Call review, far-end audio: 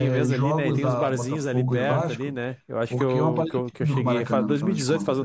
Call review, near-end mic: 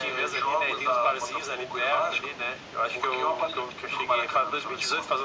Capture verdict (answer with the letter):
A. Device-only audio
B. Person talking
A